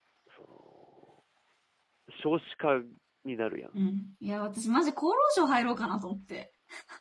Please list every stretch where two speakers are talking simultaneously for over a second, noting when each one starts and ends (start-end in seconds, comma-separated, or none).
none